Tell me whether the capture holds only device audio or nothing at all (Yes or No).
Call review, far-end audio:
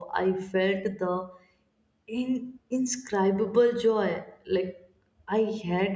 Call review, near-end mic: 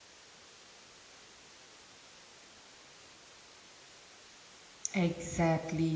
No